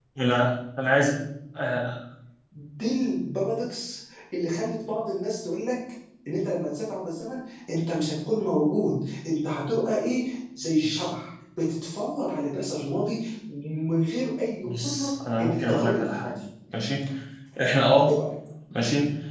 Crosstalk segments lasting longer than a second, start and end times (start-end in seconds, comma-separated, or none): 14.6-16.3